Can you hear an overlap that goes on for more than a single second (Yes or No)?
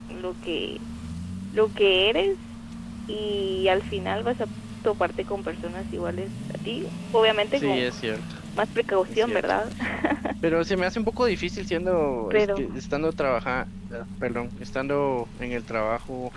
No